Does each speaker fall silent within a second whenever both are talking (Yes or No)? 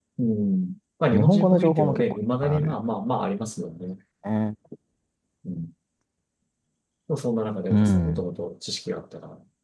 No